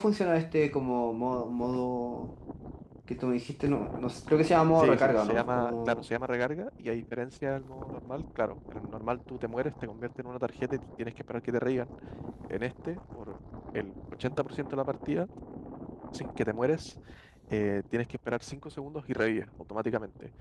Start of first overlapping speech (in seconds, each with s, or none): 4.8 s